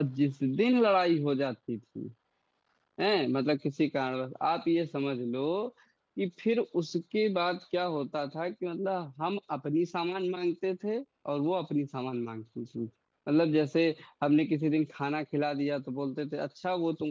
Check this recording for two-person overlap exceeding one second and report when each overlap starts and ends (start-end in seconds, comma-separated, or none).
none